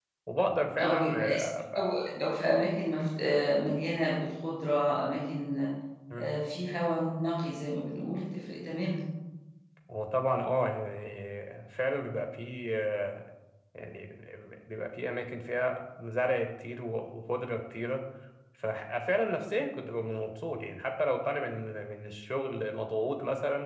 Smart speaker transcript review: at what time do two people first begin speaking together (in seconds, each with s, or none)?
0.8 s